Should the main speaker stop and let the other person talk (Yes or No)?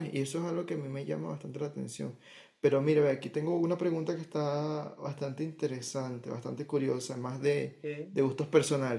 No